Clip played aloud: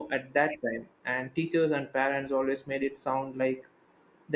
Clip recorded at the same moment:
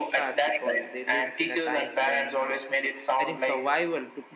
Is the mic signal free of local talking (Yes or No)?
No